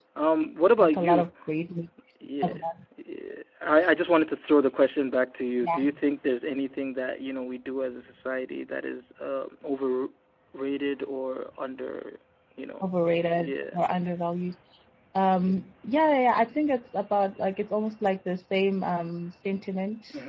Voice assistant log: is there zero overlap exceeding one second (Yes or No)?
Yes